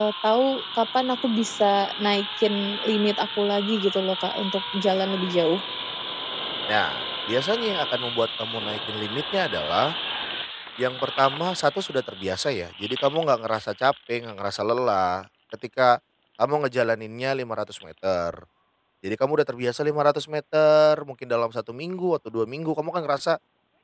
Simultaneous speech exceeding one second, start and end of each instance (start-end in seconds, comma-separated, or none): none